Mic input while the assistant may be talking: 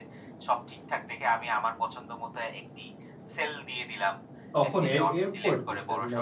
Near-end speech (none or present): present